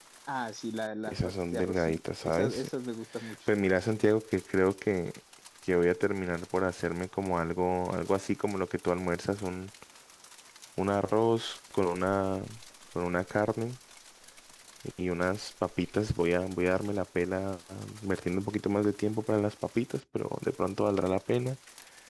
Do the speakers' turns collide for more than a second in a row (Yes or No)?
Yes